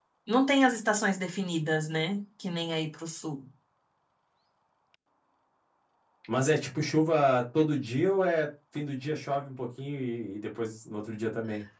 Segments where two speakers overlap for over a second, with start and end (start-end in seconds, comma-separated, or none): none